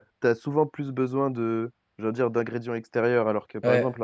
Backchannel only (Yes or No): Yes